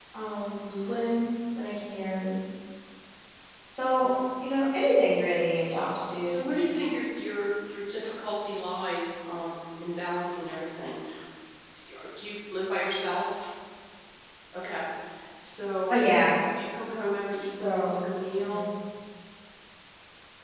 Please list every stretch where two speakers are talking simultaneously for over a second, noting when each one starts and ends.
none

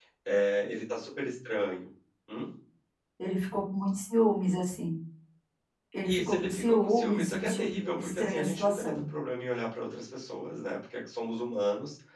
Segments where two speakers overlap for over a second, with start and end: 6.0-9.0

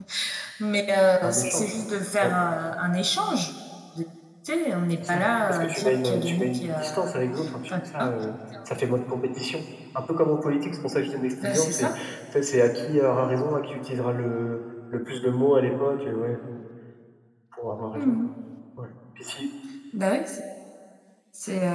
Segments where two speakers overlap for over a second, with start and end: 5.1-7.1

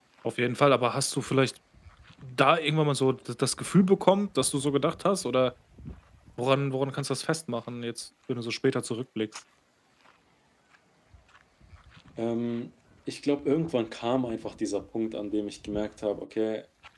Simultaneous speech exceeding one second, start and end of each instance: none

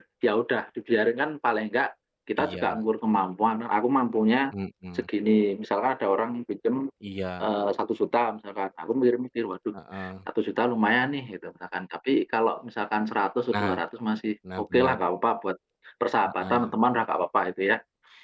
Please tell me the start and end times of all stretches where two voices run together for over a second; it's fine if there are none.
none

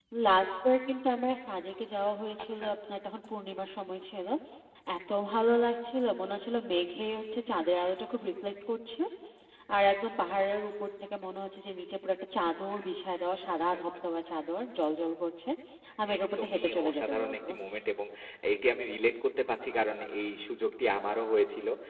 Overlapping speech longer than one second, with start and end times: 16.2-17.4

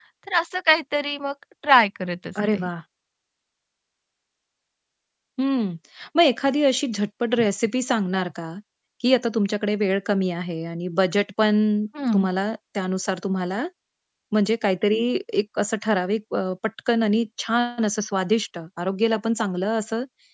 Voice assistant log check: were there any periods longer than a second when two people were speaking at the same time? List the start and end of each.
none

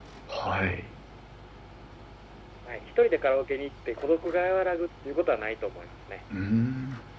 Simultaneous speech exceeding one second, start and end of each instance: none

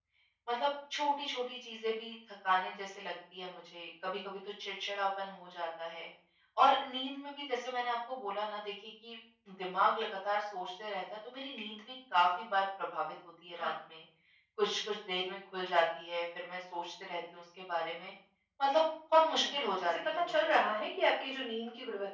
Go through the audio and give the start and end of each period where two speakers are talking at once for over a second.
19.2-20.6

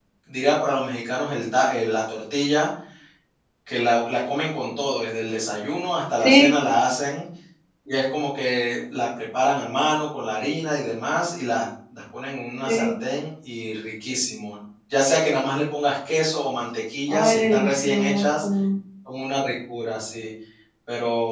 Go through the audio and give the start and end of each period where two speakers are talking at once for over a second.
17.1-18.4

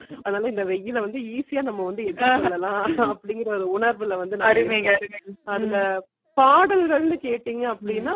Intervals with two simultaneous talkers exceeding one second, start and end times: none

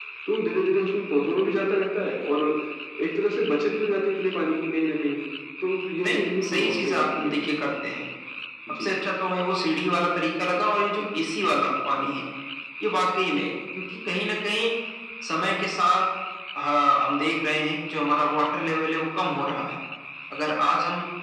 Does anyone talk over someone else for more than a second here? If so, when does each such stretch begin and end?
6.0-7.3

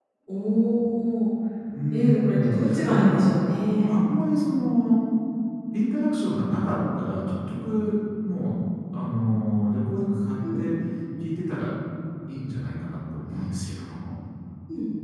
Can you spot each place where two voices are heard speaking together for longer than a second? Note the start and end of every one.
1.9-3.2

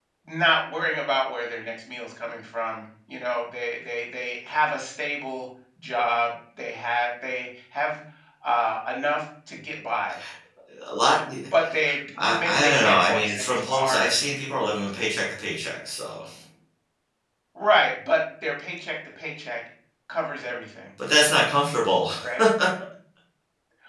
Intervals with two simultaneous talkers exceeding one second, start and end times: 12.2-14.1

